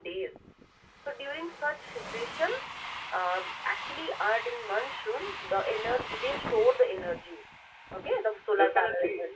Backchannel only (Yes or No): No